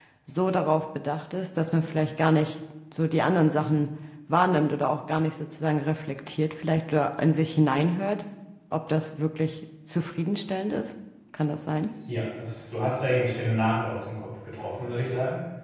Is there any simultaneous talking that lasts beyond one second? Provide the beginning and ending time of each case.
none

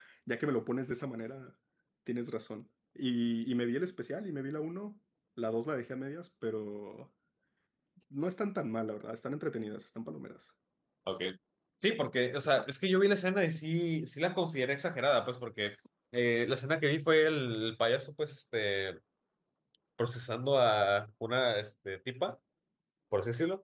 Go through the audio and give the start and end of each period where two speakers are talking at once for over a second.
none

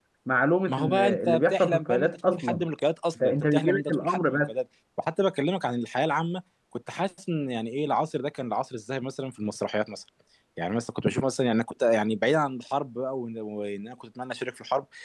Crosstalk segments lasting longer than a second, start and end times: 0.7-2.6, 3.2-4.5

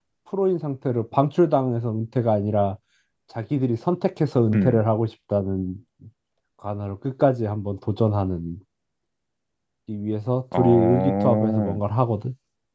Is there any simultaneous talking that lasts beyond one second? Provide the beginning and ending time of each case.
10.6-11.8

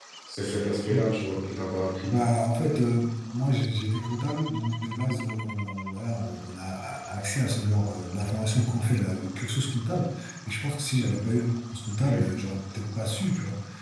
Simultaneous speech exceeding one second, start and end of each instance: none

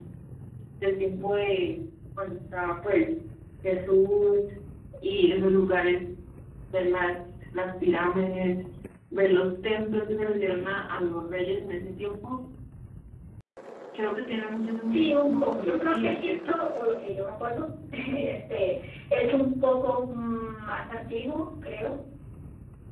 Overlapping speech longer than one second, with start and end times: 14.8-16.6

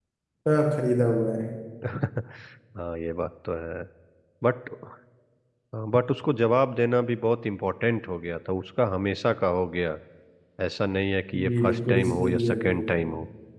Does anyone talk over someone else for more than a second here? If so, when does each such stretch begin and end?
11.4-13.1

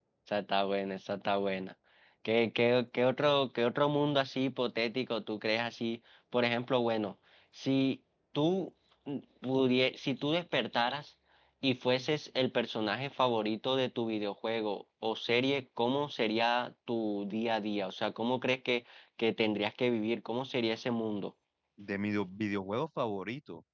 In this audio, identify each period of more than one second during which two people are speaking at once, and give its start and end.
none

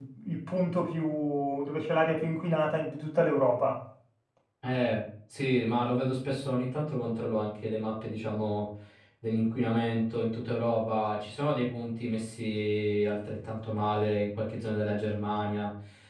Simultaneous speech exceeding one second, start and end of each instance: none

